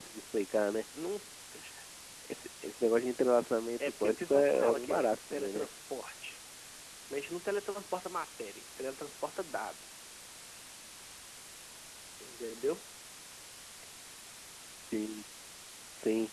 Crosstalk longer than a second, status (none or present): present